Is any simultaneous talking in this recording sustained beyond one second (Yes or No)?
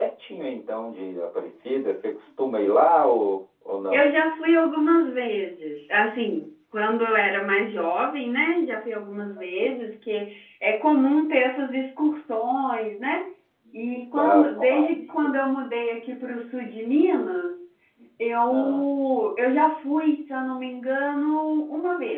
Yes